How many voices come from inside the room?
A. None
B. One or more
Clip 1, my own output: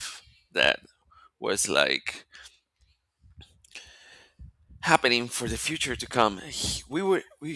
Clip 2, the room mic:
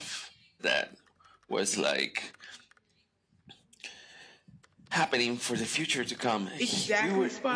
B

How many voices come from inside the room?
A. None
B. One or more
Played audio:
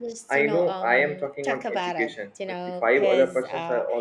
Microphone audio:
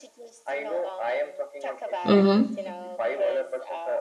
B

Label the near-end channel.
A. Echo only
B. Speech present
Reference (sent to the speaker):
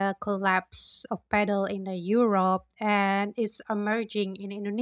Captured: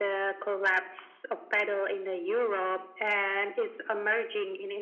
A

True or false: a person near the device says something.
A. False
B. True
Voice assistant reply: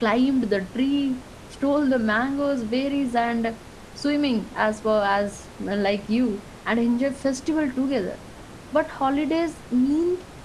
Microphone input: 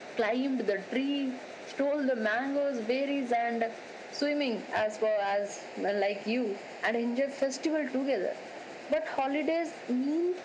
A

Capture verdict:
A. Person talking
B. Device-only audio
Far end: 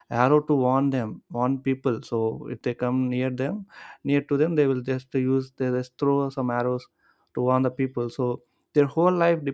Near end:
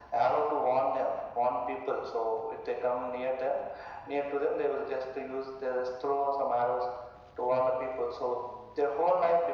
B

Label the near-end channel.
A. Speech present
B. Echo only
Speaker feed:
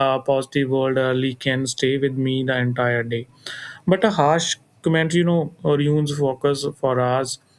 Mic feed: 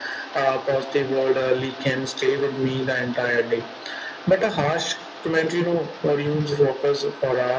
B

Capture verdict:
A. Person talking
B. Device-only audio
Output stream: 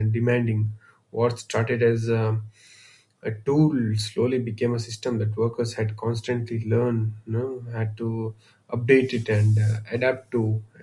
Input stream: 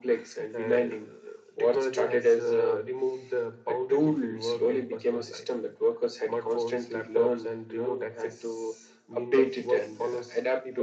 A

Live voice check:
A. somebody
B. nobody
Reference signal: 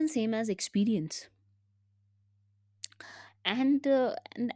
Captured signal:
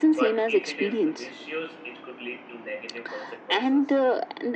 A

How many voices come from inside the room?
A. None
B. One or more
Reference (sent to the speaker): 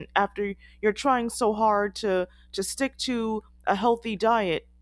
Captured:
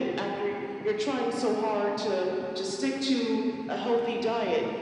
A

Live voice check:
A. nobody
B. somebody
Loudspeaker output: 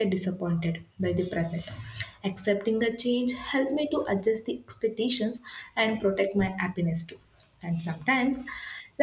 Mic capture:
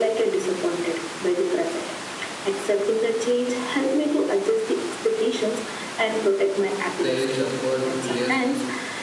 B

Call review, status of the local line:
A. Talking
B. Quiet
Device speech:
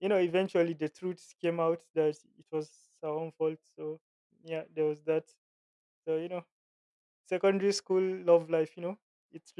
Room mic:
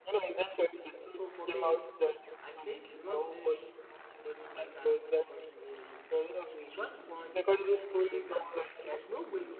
A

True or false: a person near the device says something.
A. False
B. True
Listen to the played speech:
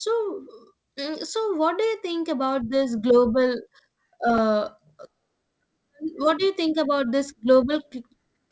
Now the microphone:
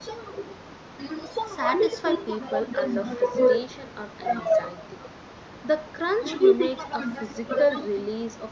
B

